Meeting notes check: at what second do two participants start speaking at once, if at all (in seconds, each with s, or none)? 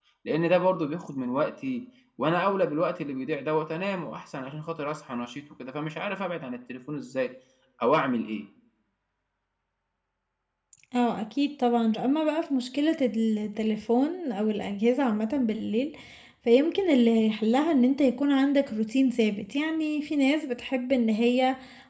none